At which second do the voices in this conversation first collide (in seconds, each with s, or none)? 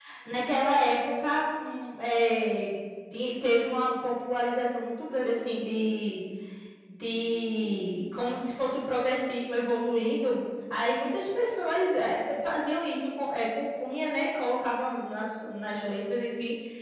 none